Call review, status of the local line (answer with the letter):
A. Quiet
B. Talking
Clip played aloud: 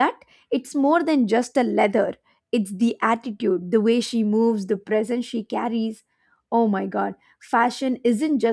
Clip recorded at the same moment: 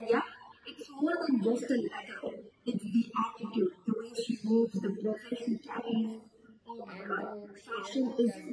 B